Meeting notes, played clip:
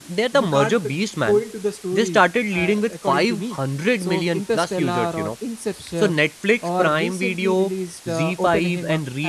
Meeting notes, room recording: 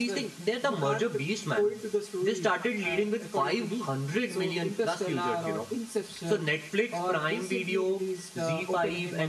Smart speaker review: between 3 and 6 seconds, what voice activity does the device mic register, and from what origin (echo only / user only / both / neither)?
echo only